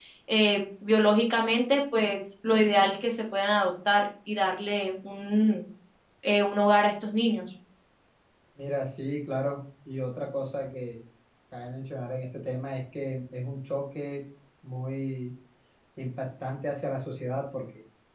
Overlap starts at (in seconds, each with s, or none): none